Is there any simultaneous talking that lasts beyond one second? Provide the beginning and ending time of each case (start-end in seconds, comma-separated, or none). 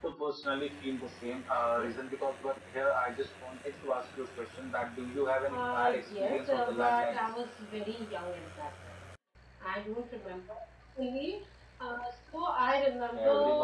5.5-7.2